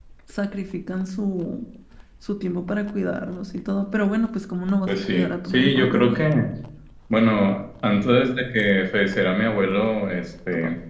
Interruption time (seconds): 5 s

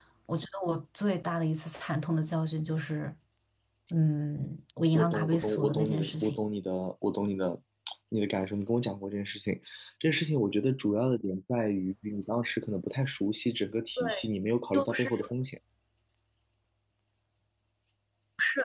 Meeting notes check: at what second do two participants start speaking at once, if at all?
5 s

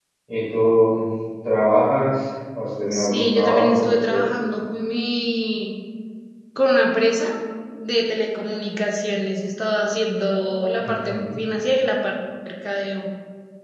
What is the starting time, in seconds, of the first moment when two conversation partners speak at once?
3 s

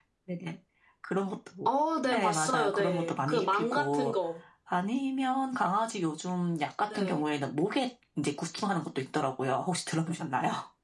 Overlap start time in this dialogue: 2 s

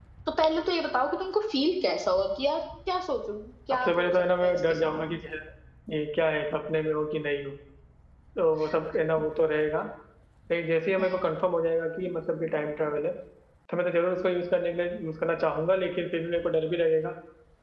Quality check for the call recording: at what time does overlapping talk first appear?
4 s

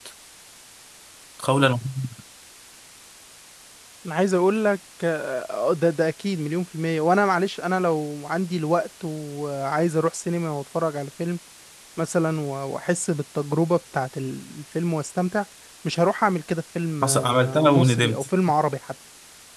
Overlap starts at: 17 s

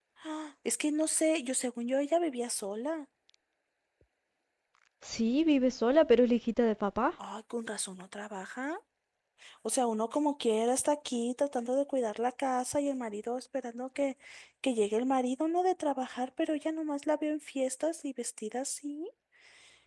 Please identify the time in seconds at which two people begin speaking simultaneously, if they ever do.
none

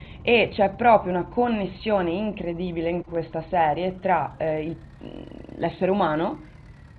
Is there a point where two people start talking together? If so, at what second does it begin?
none

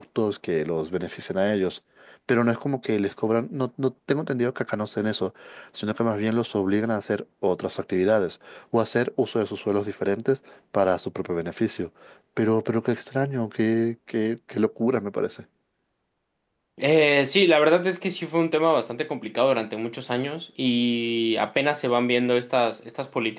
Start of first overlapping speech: none

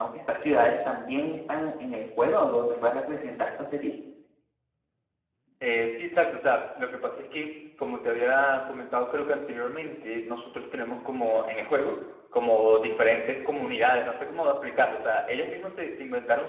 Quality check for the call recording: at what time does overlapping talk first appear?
none

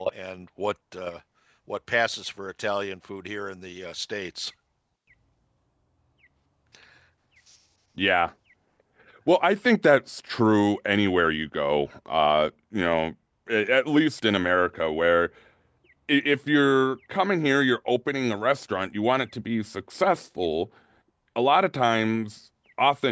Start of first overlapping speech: none

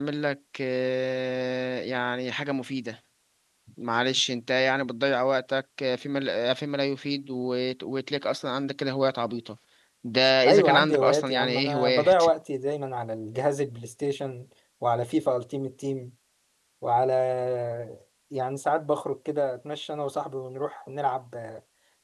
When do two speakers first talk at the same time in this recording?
10 s

